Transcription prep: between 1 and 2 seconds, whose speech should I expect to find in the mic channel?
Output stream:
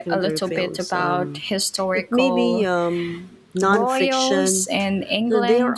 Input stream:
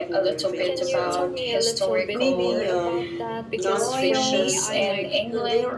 both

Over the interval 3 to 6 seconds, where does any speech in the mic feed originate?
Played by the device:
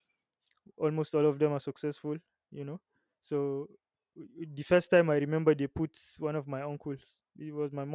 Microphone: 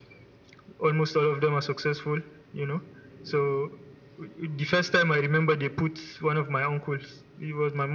echo only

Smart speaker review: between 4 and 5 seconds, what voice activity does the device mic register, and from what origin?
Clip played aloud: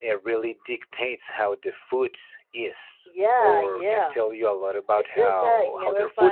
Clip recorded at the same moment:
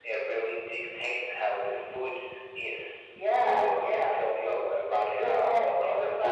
echo only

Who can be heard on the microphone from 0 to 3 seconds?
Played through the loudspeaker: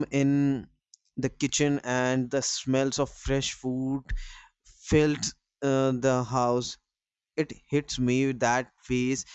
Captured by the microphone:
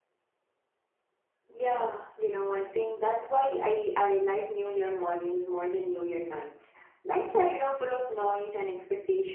user only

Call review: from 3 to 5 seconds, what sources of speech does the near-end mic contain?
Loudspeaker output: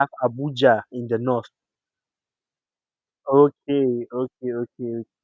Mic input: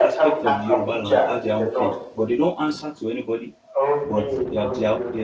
both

